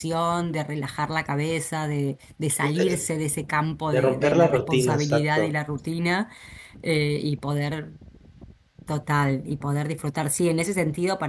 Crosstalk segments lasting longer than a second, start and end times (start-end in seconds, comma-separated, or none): 3.9-5.5